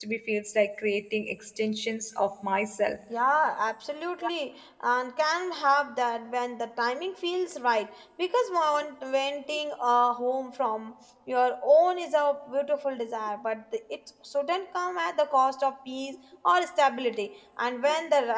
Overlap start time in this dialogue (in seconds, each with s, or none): none